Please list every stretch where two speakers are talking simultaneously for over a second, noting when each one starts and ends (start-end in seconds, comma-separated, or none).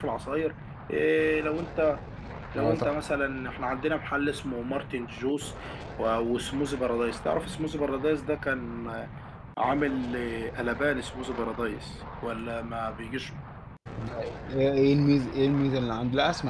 none